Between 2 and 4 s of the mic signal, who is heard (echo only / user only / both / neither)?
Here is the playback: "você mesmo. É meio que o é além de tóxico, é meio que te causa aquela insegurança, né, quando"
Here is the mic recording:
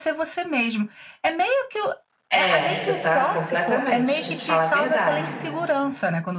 both